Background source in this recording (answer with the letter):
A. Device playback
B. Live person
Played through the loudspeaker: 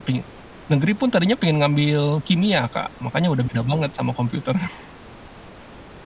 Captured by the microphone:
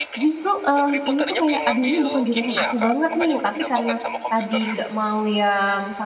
A